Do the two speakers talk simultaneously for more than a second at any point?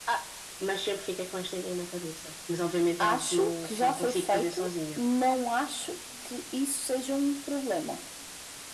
Yes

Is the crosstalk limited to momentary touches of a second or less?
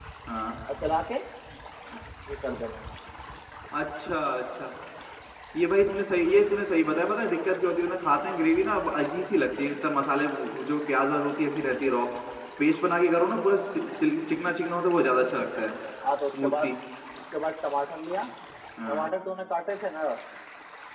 Yes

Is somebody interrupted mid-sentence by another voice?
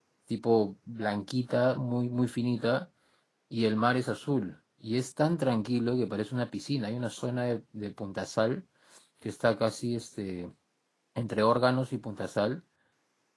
No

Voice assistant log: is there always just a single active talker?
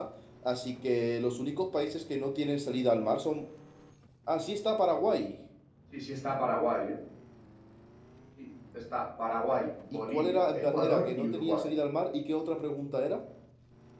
No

